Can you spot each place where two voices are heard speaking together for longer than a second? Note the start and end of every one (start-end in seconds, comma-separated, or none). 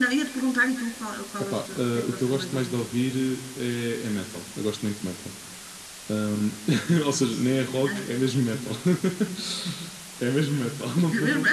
1.4-2.8